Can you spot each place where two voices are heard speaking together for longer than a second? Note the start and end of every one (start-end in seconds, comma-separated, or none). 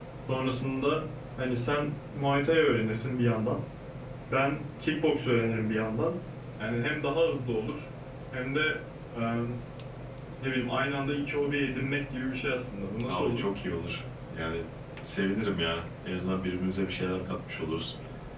none